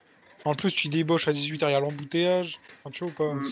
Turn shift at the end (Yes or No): Yes